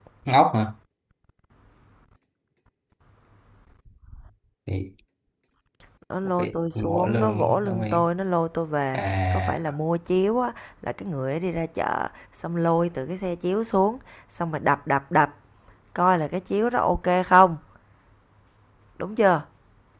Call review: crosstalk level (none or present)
present